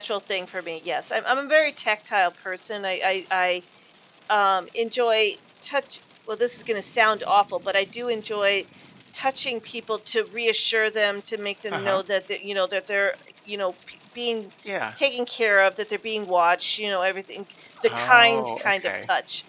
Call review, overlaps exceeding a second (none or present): present